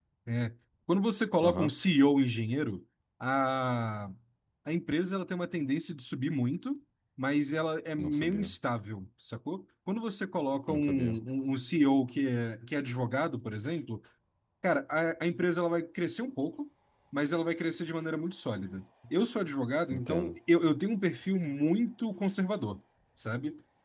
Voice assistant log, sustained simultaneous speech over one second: none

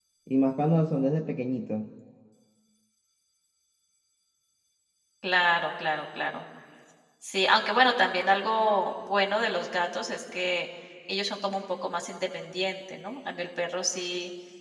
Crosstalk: none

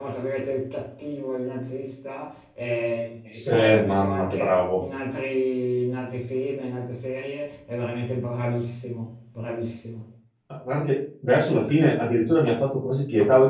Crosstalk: present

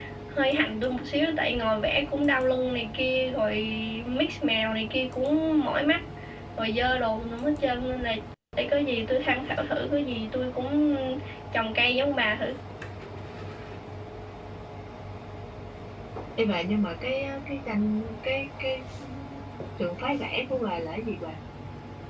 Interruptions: none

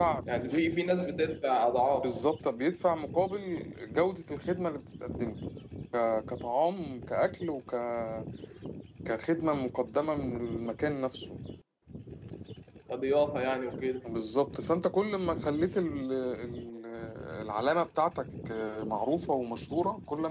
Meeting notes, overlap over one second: none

